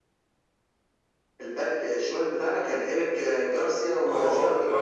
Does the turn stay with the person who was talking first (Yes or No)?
No